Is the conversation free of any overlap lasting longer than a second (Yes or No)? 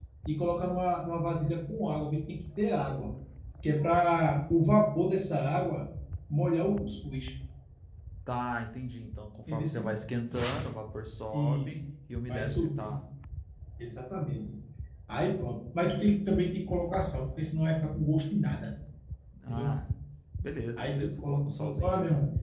No